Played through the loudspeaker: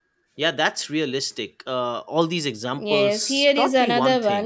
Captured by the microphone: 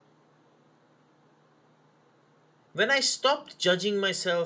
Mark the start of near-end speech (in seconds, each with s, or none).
2.7 s